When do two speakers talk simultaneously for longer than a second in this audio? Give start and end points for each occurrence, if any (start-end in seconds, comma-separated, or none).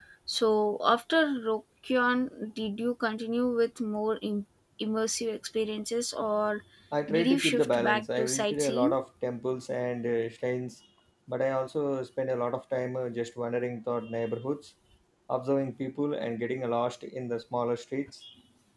7.1-8.9